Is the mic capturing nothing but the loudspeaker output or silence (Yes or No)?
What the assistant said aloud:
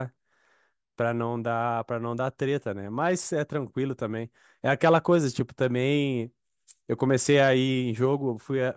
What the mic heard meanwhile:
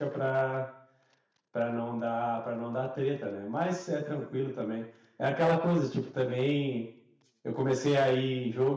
Yes